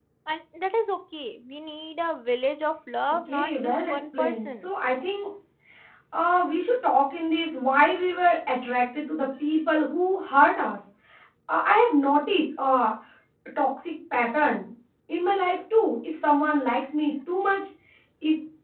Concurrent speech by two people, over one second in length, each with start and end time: 3.3-4.7

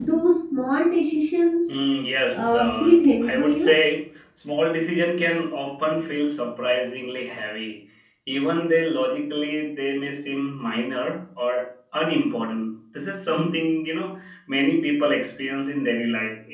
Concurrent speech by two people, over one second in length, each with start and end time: 2.3-3.7

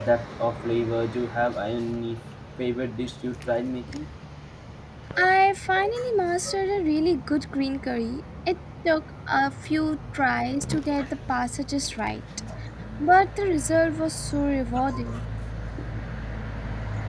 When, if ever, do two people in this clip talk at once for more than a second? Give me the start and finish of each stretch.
none

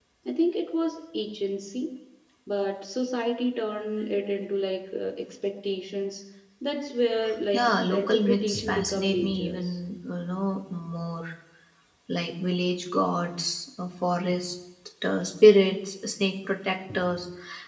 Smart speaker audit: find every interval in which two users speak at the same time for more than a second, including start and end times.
7.5-9.8

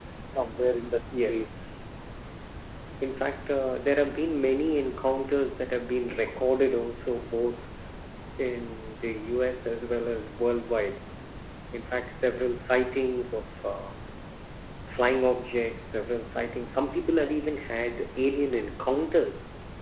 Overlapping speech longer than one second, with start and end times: none

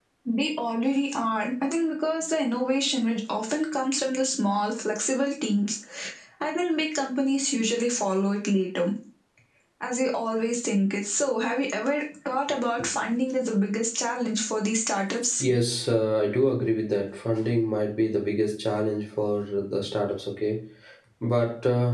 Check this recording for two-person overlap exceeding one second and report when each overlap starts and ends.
none

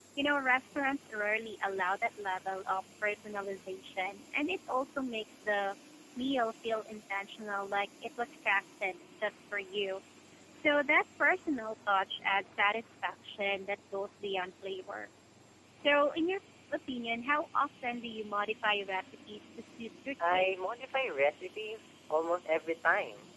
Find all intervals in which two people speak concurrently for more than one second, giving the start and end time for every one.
none

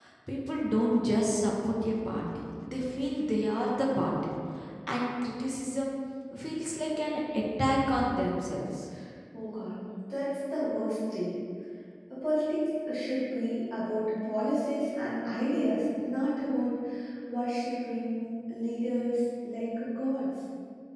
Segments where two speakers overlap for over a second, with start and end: none

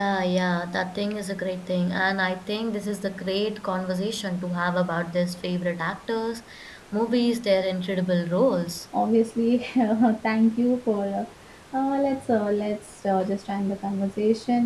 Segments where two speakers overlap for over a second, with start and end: none

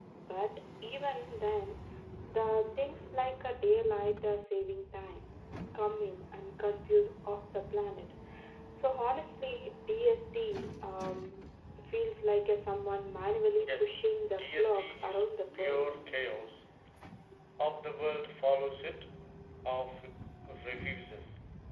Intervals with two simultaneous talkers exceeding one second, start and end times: 13.6-15.9

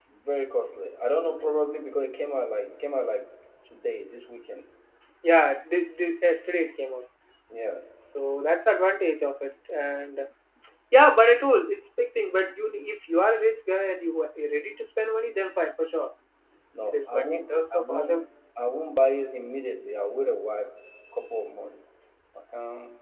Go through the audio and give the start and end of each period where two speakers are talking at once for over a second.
16.9-18.2

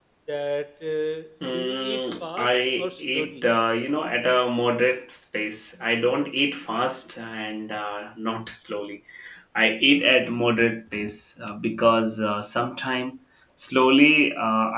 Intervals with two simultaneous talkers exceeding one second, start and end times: 1.5-3.4

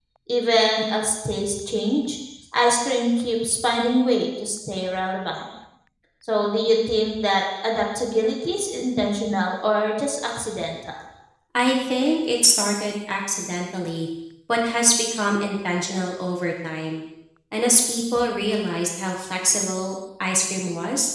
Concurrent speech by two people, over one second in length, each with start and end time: none

